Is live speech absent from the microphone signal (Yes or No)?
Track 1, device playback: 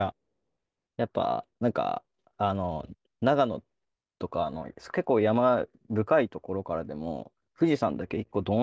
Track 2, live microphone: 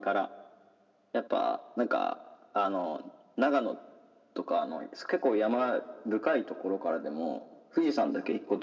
Yes